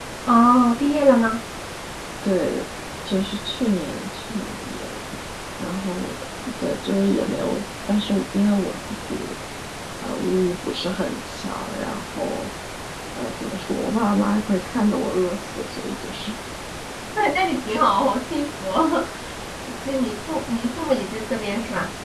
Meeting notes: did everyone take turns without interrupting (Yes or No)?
Yes